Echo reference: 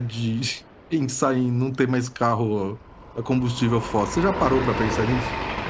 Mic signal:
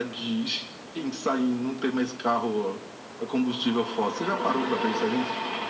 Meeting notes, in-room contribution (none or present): none